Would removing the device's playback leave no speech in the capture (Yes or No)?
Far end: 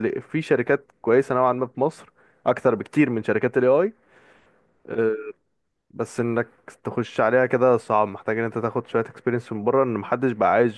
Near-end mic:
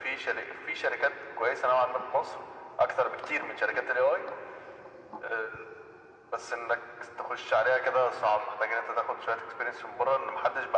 Yes